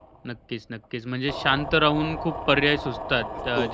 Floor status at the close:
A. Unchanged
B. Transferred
A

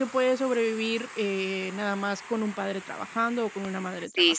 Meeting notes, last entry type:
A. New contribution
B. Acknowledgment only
A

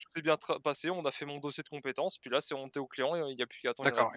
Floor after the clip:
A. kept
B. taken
B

